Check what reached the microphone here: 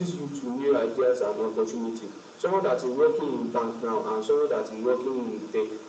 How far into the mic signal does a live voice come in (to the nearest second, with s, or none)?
none